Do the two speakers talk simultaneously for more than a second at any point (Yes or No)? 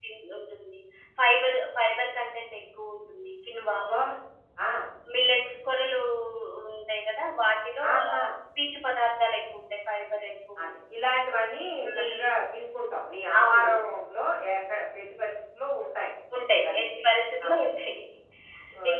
No